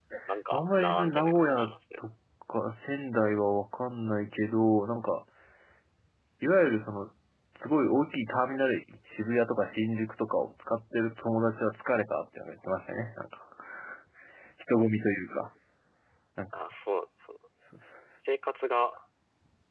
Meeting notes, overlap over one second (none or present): present